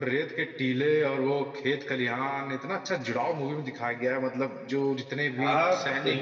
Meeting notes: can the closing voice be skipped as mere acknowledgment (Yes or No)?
No